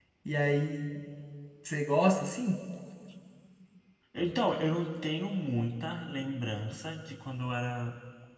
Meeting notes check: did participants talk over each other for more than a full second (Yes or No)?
No